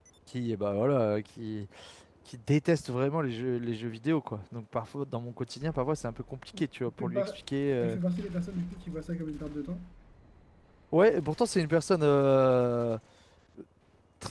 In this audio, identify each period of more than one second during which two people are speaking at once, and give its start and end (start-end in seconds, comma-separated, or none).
none